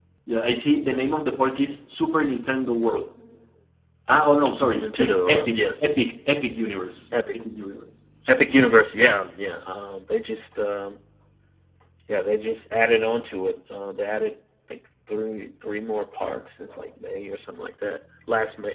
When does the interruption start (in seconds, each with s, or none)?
4.5 s